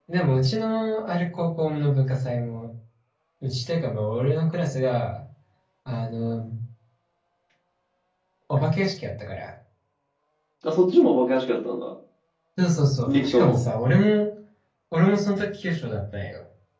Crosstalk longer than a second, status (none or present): none